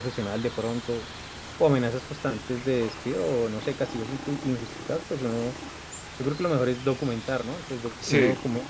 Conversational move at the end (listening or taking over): listening